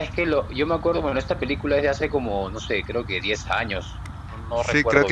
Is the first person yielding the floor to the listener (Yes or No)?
Yes